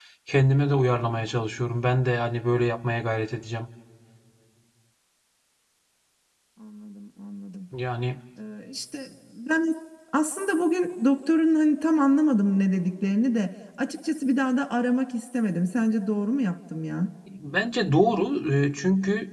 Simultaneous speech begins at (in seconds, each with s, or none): none